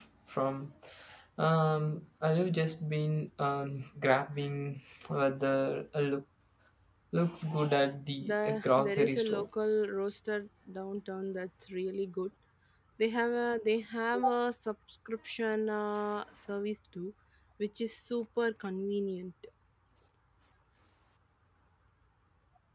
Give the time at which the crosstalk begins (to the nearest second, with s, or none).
8 s